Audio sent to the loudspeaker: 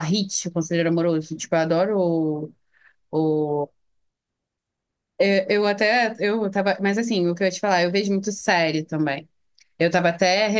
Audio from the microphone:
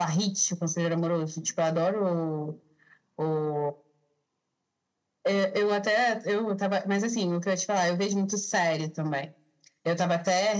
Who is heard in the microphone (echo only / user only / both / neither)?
echo only